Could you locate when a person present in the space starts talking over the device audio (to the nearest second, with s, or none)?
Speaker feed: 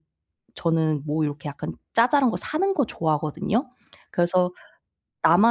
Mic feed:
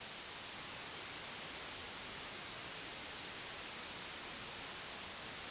none